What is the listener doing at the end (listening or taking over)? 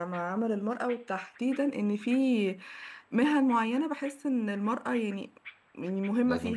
listening